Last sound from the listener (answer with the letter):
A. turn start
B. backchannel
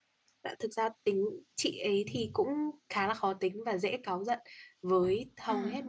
B